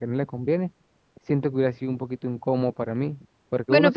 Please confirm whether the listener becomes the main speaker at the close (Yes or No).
Yes